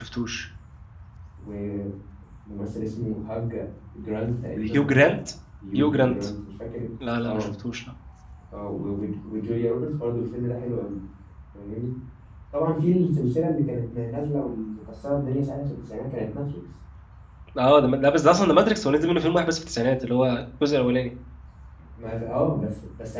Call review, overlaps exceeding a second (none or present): none